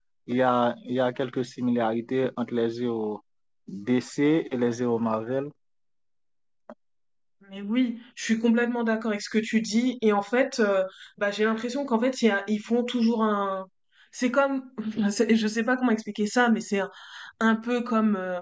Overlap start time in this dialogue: none

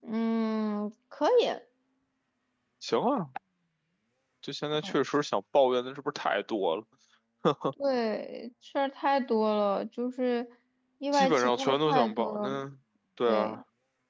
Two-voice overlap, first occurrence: 11.1 s

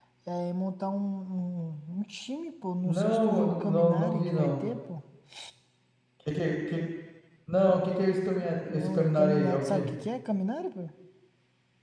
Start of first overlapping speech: 2.8 s

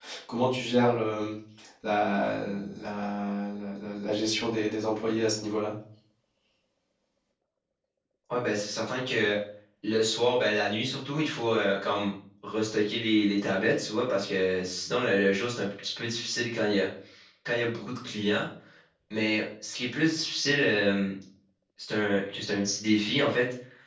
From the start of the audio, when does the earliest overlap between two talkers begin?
none

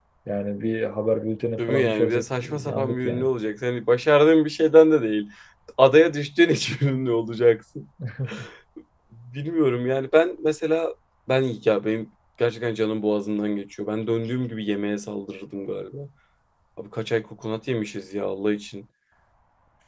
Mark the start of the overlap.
1.6 s

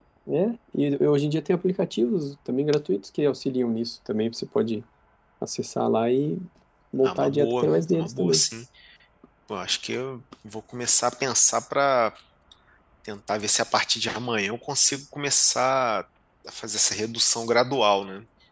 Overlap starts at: 7.0 s

